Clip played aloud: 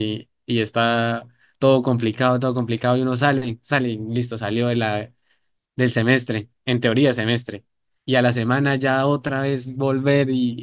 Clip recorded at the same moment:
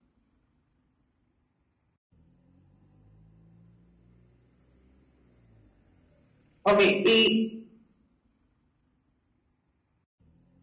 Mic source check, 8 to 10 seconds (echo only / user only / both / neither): neither